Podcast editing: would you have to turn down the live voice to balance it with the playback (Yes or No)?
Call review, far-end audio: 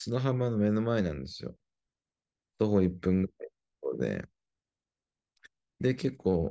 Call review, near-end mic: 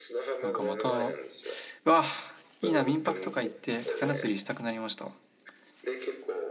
Yes